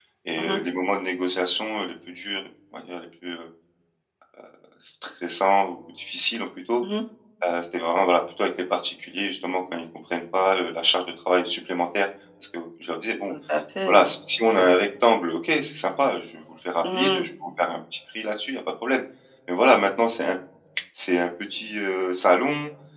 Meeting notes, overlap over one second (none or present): none